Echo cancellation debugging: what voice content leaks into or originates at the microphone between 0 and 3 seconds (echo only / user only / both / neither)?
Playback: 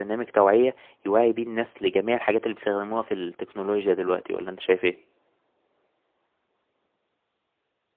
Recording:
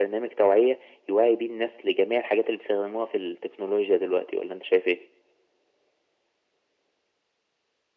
echo only